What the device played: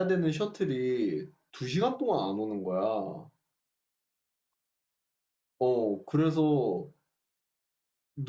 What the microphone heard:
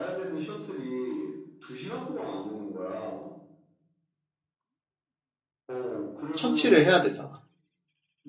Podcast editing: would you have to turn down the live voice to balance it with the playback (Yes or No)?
Yes